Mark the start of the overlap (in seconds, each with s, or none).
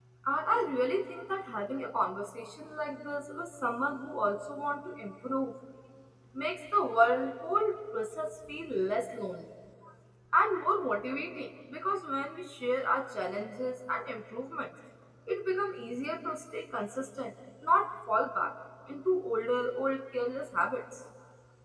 none